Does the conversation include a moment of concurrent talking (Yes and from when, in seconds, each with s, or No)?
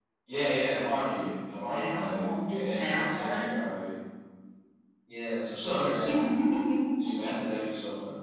Yes, from 1.6 s